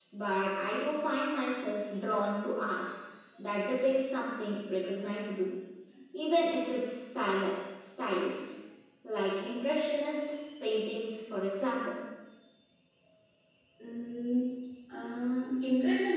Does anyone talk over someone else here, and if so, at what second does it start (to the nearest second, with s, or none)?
none